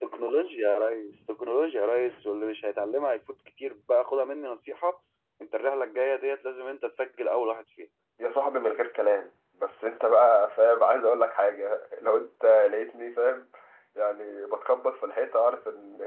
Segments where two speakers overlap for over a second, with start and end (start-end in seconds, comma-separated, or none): none